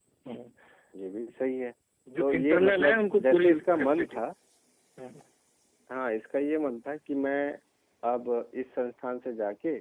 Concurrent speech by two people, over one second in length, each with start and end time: 2.2-4.2

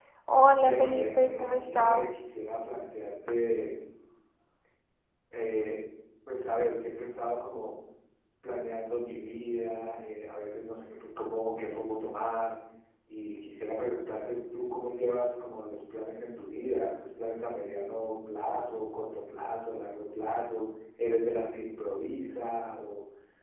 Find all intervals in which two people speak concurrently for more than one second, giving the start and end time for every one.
0.5-2.2

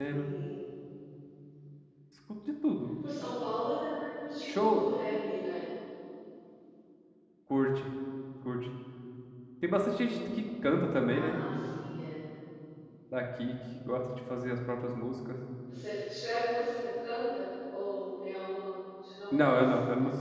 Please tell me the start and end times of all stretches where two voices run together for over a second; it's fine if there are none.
none

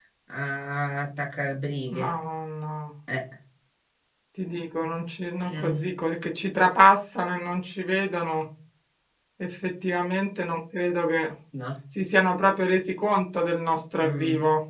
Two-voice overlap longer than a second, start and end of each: none

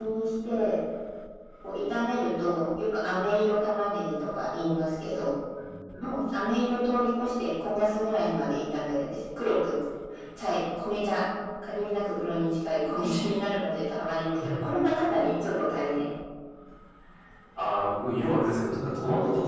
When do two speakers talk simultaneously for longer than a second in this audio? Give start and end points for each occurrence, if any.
none

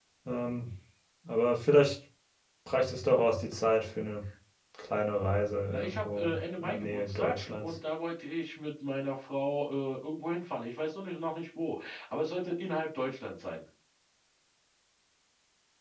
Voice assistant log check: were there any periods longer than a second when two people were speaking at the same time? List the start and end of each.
5.7-7.8

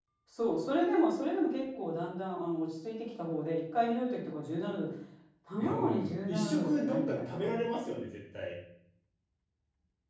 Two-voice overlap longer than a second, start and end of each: 5.6-7.6

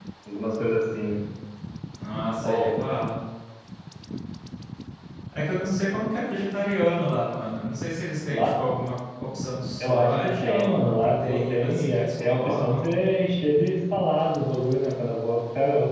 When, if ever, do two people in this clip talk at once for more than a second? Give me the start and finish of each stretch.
9.8-12.9

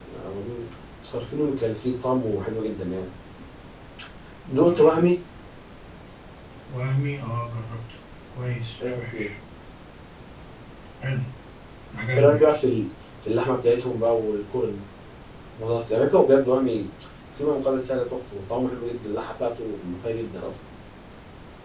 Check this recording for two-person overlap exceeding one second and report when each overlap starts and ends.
none

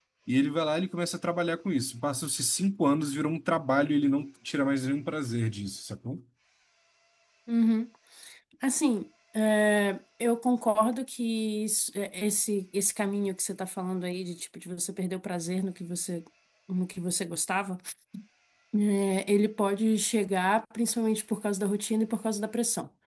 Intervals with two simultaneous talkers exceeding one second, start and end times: none

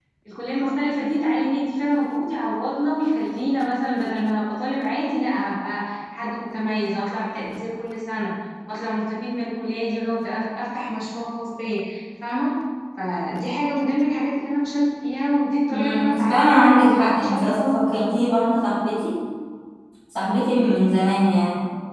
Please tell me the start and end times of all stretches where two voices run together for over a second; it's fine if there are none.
15.7-17.6

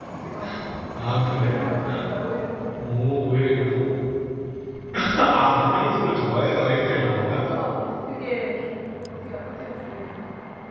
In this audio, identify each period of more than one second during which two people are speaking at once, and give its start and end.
none

